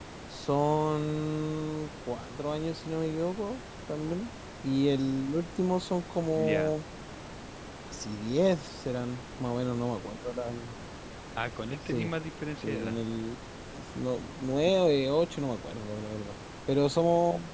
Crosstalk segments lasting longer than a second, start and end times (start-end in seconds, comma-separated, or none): none